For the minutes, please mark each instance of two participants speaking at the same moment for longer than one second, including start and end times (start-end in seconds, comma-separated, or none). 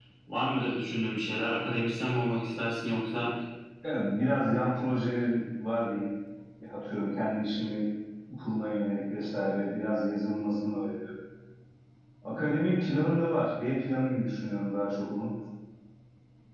none